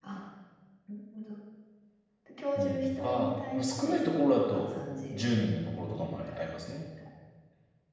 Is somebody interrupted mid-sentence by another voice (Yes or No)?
Yes